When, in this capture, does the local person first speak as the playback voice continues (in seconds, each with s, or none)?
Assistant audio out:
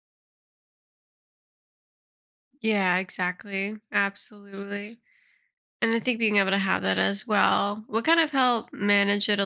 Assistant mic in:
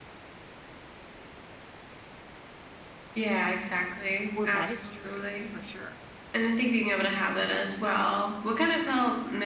4.3 s